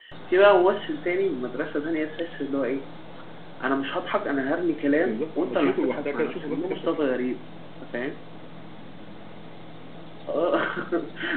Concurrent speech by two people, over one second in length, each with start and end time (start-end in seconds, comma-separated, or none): 5.0-7.1